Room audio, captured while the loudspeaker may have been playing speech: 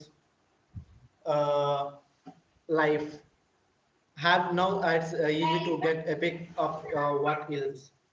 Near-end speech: present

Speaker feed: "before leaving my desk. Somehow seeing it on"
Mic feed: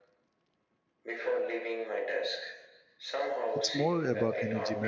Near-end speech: present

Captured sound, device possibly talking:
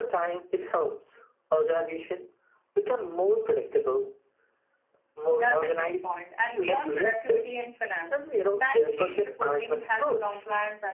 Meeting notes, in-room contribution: present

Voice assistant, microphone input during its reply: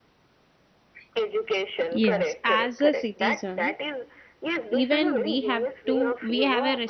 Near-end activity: present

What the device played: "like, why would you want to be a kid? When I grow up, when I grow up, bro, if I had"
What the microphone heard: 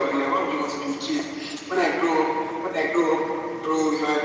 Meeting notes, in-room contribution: none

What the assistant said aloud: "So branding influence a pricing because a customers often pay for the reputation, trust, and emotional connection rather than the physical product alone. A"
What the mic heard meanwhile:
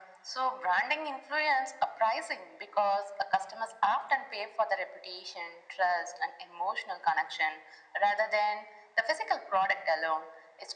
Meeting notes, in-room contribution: none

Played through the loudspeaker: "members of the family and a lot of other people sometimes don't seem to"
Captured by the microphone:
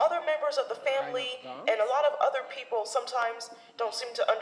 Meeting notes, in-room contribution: present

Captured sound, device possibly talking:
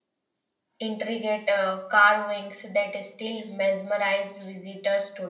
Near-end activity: present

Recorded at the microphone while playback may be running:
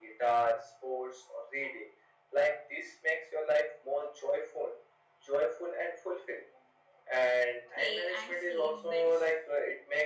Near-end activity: present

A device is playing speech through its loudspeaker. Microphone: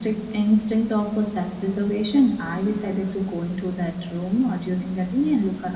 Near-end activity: none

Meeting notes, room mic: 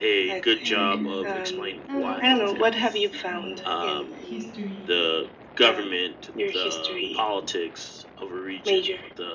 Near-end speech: present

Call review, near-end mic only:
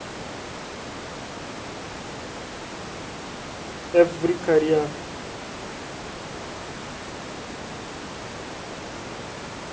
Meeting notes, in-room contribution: present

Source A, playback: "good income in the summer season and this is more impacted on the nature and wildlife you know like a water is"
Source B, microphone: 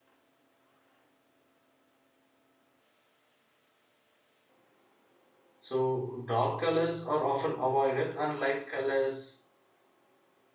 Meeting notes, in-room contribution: present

